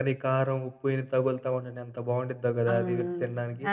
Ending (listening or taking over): taking over